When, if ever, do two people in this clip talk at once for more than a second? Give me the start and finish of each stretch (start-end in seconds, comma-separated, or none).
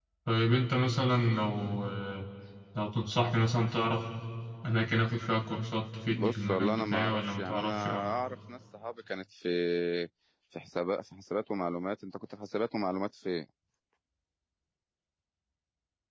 6.0-8.1